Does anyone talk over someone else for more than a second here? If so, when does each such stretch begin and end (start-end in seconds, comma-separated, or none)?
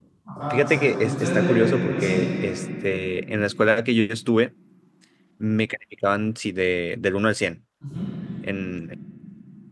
0.5-2.2